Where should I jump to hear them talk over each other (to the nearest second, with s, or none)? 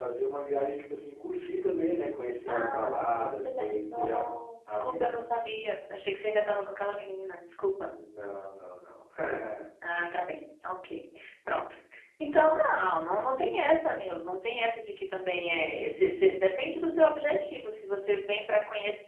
2 s